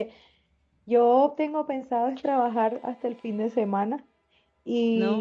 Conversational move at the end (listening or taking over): listening